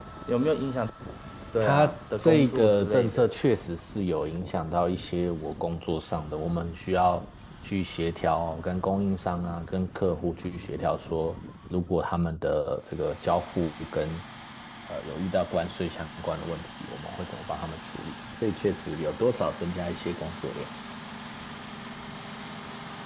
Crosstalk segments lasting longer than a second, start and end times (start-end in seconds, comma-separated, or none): 1.6-3.4